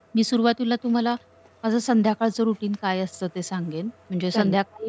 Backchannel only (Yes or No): Yes